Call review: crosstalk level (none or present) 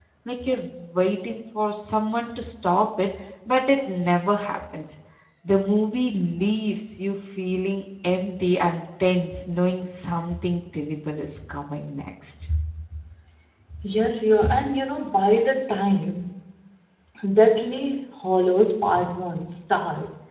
none